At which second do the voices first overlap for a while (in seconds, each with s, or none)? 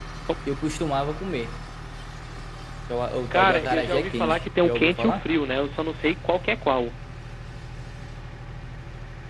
3.3 s